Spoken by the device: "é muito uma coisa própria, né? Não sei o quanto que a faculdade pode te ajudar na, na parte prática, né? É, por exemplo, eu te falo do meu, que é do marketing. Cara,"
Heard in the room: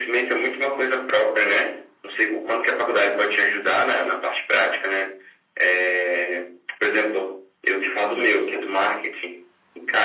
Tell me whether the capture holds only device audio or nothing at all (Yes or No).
Yes